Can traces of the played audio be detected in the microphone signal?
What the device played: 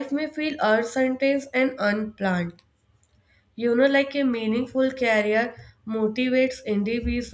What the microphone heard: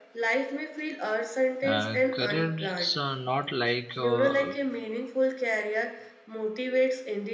Yes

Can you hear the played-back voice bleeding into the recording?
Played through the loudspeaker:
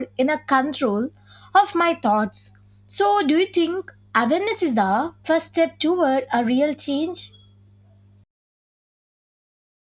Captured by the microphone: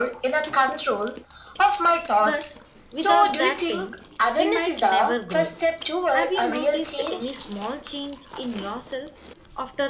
Yes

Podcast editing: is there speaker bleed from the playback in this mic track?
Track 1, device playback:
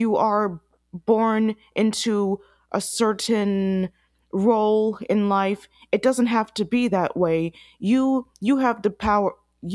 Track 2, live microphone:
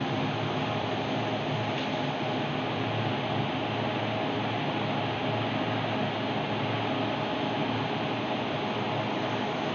No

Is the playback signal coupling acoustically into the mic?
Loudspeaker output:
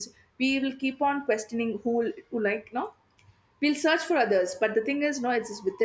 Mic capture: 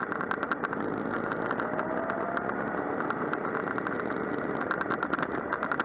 No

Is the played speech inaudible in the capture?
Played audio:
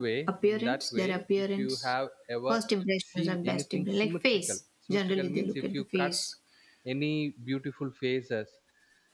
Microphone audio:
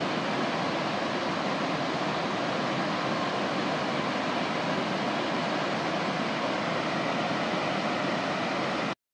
Yes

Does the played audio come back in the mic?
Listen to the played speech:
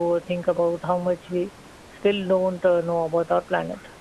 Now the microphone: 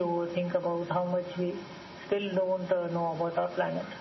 Yes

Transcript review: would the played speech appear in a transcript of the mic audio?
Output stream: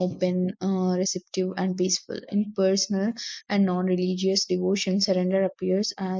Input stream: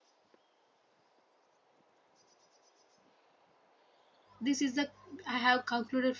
No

